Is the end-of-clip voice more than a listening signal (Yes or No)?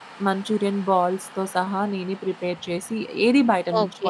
Yes